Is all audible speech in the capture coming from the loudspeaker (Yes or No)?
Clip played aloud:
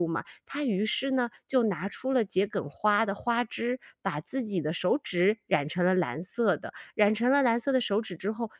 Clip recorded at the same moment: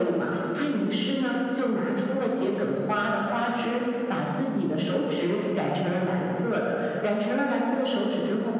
Yes